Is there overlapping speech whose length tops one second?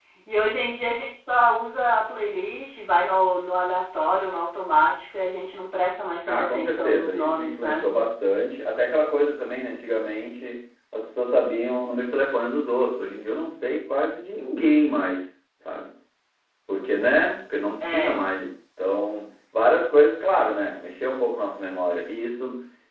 Yes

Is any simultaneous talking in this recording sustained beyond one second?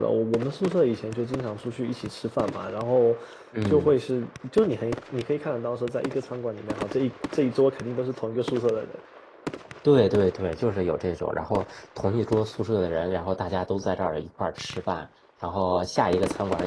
No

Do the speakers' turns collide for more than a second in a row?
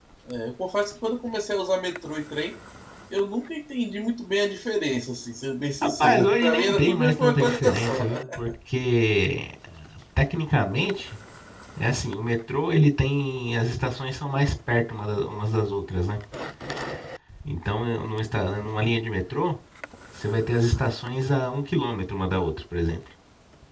Yes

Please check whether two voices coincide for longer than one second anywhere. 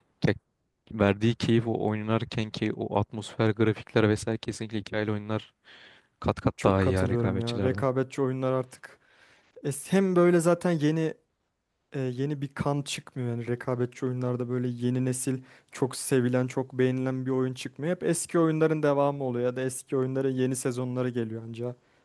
Yes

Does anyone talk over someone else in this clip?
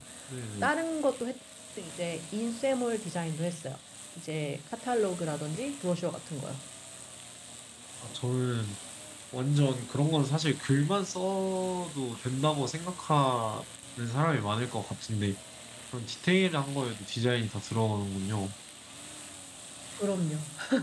No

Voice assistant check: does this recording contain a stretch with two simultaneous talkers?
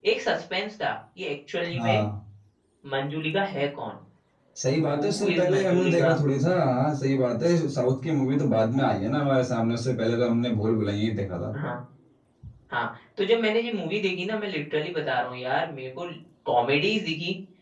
Yes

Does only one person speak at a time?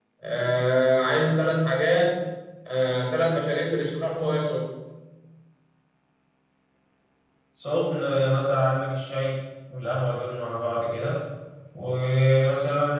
Yes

